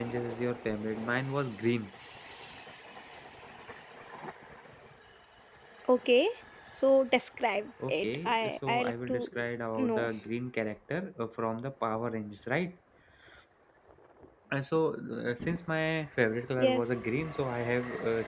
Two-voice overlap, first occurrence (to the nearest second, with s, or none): 8 s